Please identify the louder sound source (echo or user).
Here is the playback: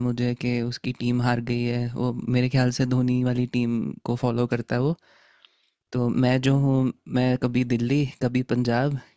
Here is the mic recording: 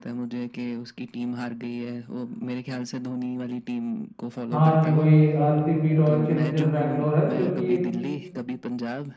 user